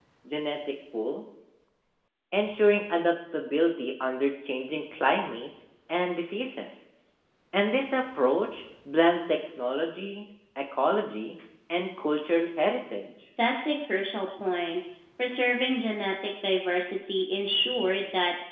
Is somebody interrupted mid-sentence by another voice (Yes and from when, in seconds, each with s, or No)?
No